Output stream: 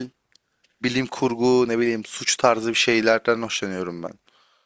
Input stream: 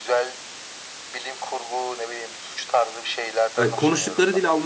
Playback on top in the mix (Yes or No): No